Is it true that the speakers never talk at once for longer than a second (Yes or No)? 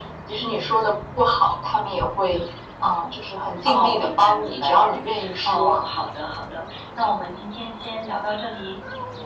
No